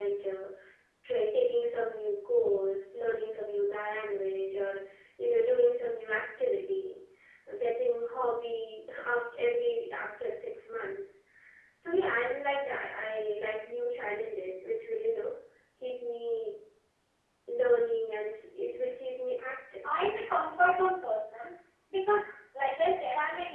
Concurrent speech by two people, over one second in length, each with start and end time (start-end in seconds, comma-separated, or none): none